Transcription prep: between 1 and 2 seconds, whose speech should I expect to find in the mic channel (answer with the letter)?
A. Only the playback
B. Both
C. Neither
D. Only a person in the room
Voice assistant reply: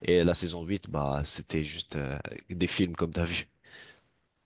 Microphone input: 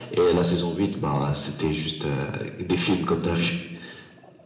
A